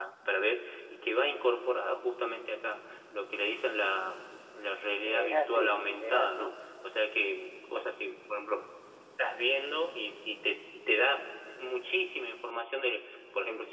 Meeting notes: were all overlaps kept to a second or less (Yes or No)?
No